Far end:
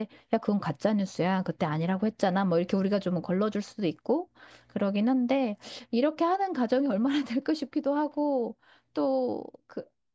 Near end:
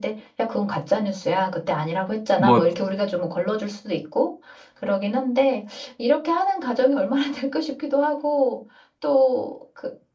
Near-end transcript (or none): 뭐